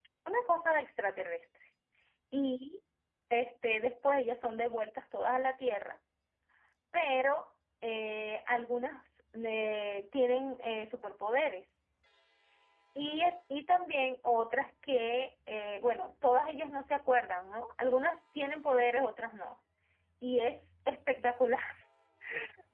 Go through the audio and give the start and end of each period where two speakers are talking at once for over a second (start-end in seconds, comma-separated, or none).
none